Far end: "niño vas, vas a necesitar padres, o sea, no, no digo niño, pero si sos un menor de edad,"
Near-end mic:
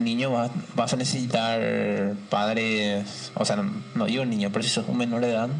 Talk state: echo only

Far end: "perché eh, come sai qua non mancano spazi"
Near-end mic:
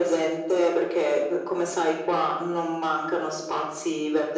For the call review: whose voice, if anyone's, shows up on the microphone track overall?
echo only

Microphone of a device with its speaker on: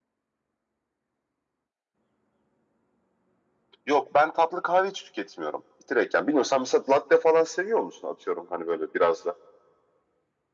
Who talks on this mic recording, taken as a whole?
echo only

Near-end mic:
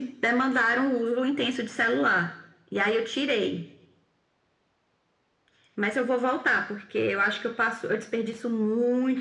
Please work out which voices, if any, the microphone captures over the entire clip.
echo only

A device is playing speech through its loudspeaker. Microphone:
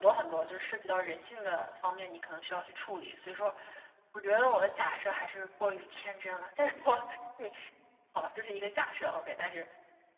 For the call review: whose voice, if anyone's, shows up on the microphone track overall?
echo only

